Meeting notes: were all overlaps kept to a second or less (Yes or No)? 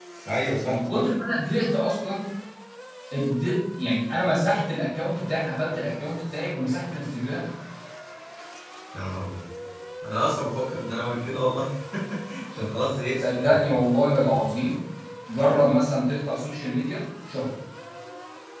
Yes